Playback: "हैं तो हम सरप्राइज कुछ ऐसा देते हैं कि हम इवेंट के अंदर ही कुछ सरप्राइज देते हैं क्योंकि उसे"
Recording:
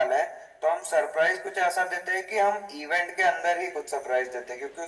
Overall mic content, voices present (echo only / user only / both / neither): echo only